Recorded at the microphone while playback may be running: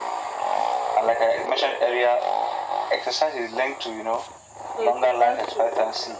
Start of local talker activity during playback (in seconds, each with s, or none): 4.6 s